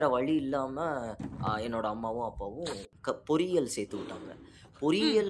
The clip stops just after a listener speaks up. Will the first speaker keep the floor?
Yes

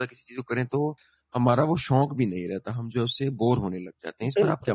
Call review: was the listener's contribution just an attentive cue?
No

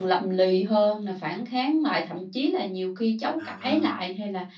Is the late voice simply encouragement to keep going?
Yes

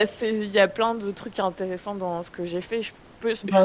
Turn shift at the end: No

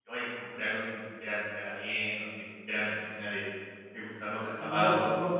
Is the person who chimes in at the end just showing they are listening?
No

